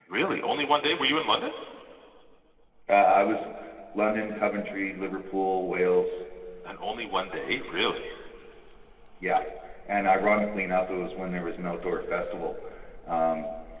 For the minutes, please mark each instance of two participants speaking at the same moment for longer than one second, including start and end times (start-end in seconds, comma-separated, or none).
none